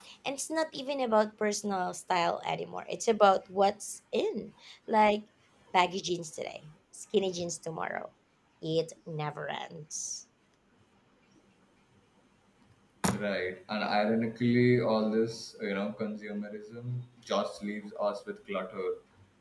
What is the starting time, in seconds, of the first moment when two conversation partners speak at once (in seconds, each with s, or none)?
none